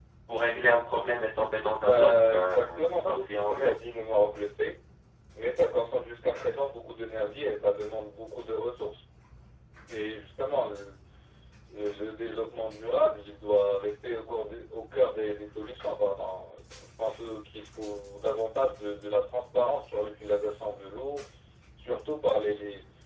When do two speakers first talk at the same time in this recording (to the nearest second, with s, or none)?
2 s